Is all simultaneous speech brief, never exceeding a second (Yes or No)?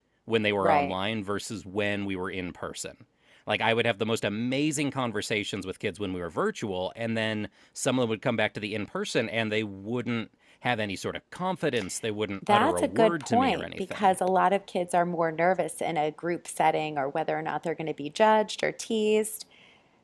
No